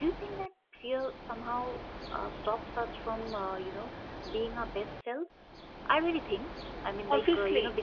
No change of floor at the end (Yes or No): No